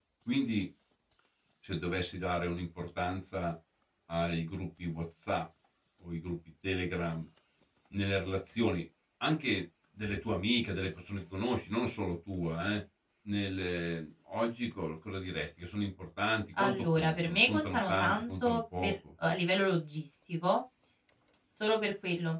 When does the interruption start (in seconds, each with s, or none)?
16.6 s